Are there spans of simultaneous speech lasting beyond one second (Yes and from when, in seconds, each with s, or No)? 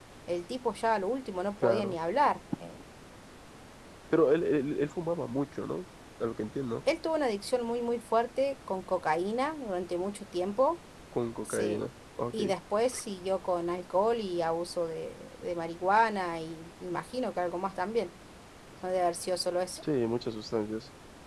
No